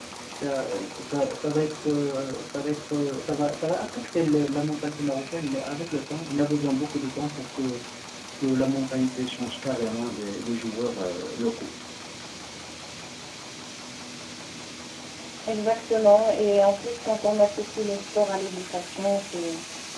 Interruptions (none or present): none